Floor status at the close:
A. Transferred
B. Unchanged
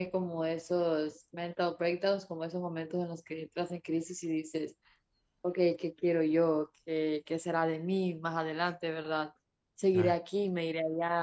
B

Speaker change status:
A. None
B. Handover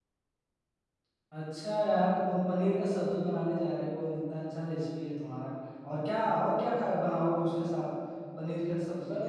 B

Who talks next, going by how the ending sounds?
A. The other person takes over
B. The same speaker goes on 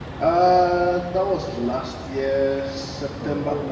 B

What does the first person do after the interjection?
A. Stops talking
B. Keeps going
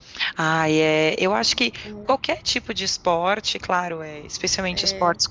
B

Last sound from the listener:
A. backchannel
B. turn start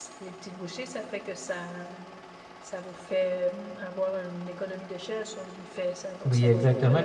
B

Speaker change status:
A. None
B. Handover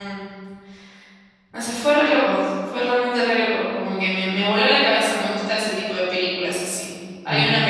A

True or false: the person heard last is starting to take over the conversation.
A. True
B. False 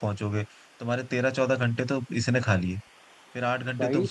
B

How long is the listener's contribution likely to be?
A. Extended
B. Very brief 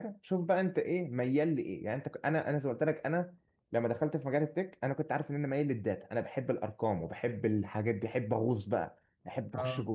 B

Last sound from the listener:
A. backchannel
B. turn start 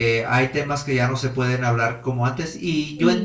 A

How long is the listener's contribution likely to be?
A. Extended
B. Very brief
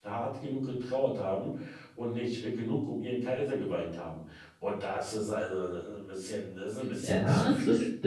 A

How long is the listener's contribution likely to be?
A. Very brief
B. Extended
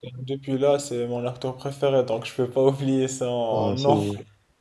B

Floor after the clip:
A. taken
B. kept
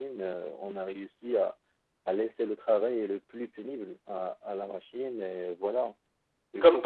A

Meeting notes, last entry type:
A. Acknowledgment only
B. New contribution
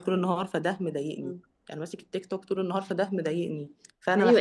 B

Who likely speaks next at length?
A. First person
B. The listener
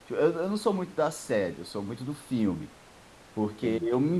A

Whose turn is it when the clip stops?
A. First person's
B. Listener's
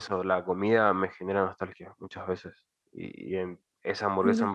A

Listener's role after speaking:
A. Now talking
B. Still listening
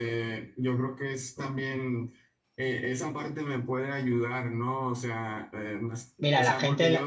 A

